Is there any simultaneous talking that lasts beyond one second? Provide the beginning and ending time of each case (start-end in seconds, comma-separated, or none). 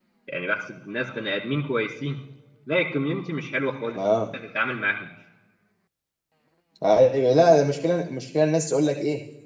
none